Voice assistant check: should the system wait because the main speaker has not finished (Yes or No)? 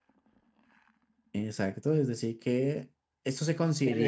No